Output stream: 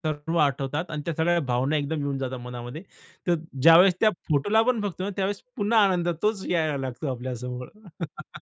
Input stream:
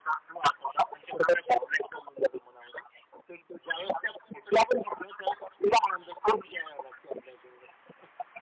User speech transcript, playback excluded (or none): none